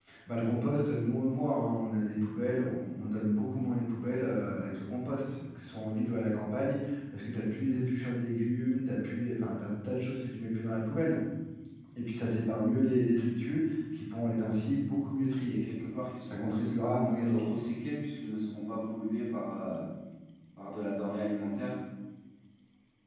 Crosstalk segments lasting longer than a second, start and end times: 16.2-17.6

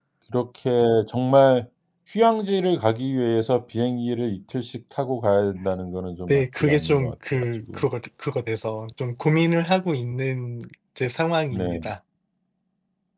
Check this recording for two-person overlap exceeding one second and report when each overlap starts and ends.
6.3-7.9

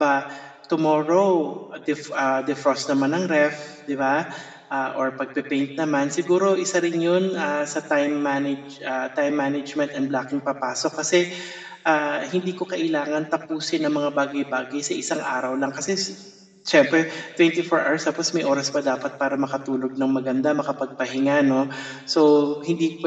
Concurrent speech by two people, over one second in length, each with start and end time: none

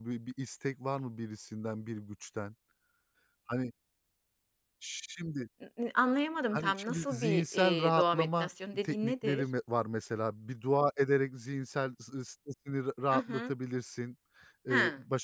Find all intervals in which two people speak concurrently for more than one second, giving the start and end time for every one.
6.5-9.4

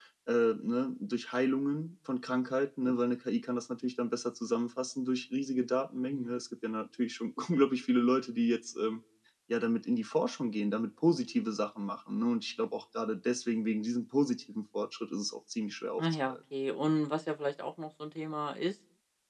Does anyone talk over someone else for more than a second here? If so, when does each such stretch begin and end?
none

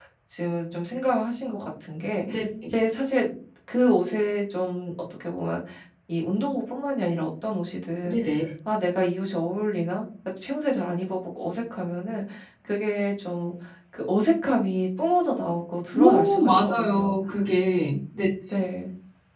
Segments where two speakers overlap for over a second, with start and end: 15.9-17.2

